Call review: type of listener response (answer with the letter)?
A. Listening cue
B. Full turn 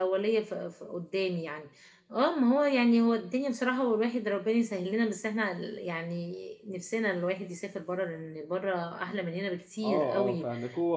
B